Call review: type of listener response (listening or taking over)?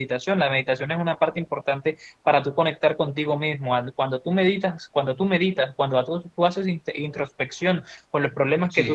listening